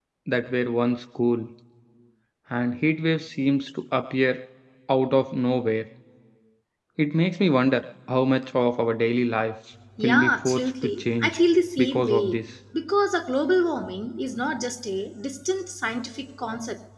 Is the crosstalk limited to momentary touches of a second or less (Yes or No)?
No